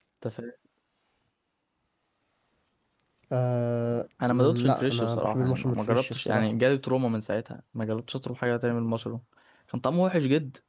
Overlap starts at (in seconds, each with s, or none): 4.2 s